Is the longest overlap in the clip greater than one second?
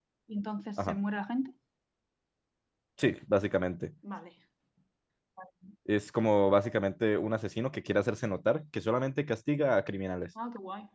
No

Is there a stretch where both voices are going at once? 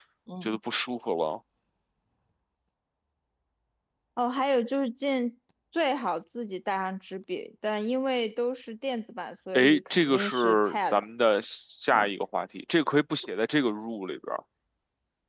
Yes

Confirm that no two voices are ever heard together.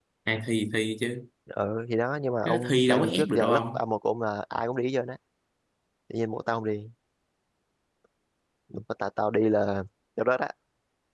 No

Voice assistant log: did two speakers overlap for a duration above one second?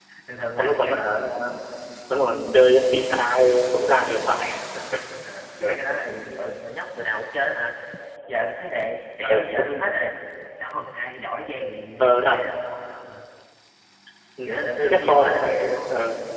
Yes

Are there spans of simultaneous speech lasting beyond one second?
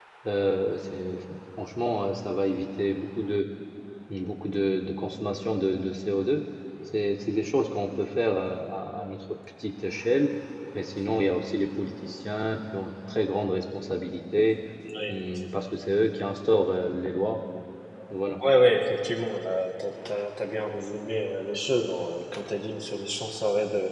No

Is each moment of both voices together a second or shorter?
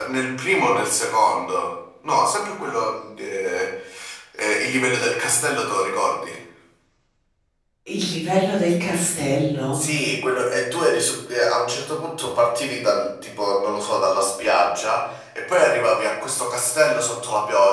Yes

